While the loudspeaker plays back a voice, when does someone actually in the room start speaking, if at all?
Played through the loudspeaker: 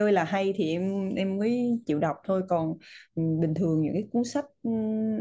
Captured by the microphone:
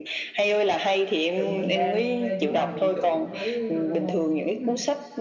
1 s

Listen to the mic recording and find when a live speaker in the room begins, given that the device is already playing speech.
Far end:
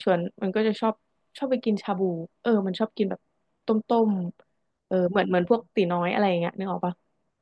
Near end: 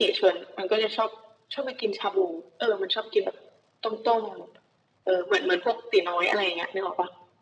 none

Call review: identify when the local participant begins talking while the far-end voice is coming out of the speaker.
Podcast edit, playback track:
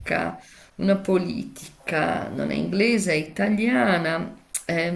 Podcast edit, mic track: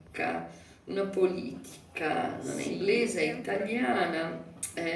2 s

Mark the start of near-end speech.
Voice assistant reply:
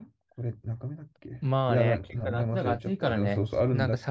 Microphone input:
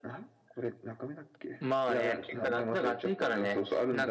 none

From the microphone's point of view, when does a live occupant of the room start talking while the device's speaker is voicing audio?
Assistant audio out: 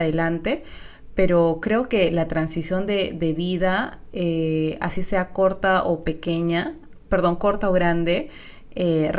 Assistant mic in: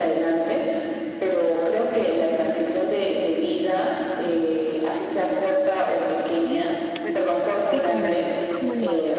6 s

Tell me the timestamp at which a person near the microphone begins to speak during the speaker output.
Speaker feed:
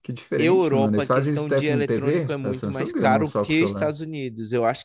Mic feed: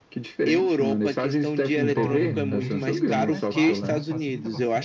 2 s

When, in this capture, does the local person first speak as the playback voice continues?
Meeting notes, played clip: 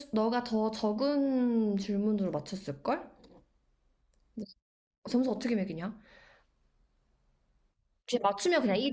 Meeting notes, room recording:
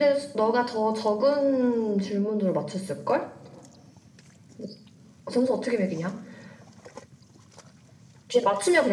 none

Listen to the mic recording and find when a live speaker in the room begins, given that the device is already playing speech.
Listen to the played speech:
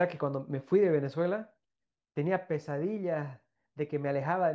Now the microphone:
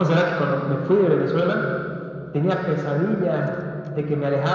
none

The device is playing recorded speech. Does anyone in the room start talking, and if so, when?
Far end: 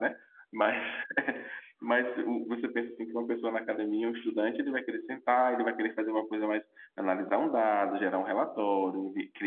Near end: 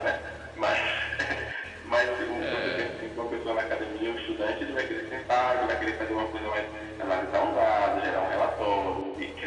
2 s

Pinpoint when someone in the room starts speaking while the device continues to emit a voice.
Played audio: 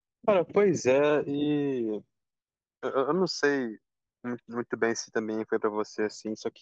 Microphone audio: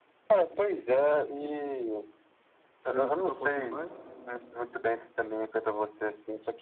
3 s

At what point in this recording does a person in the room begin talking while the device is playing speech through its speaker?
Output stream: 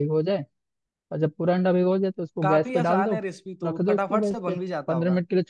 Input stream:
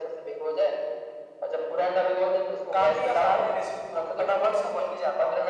none

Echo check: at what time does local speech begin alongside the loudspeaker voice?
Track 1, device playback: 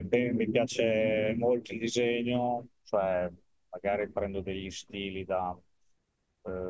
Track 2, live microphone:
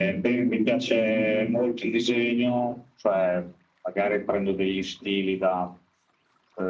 none

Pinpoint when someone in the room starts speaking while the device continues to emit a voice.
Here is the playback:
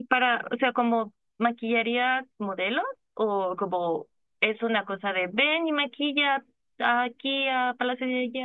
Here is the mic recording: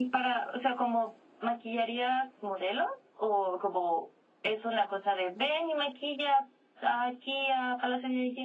none

